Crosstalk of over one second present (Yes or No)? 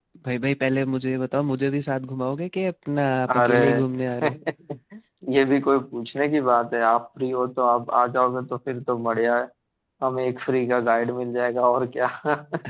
No